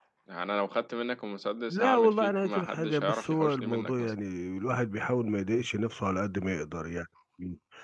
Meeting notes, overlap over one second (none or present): present